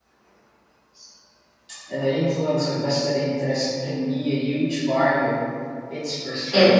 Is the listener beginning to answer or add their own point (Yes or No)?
Yes